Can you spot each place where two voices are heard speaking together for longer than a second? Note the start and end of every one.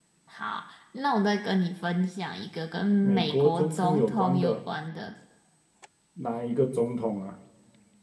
3.0-4.6

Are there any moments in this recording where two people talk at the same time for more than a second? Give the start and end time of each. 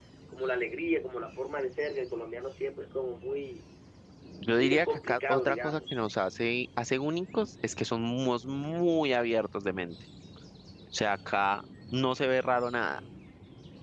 4.5-6.0

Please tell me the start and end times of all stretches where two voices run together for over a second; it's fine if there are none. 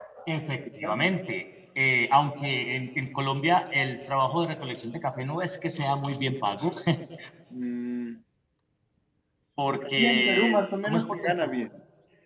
9.7-11.6

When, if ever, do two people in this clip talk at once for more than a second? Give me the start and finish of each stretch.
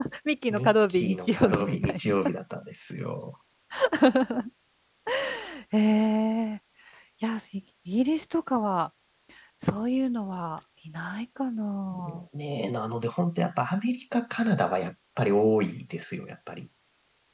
0.5-2.1

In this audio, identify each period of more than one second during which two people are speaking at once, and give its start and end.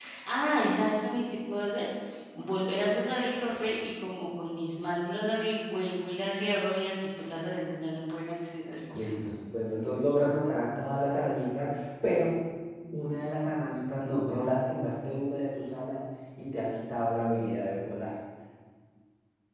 none

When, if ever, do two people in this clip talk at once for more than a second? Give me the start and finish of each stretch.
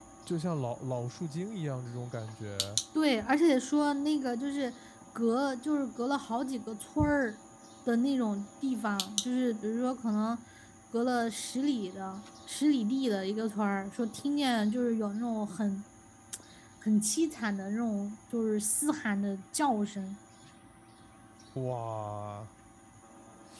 none

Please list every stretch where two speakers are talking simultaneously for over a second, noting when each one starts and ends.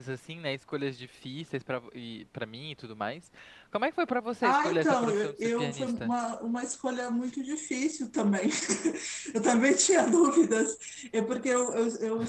4.5-6.1

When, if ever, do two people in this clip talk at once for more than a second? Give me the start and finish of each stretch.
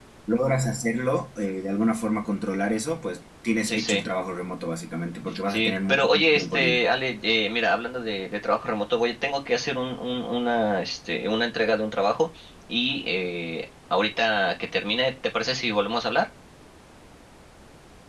5.5-6.8

